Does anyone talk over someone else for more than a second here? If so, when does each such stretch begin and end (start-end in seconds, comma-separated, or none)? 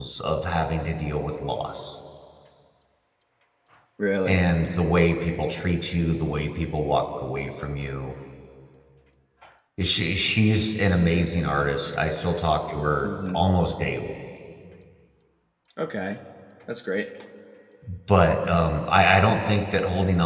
none